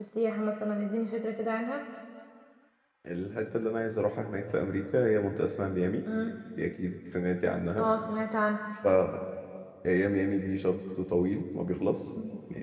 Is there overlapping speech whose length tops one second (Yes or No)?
No